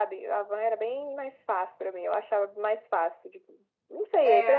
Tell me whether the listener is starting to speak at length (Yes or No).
No